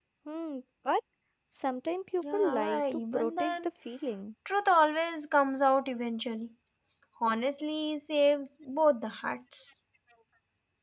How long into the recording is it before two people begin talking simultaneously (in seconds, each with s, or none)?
2.2 s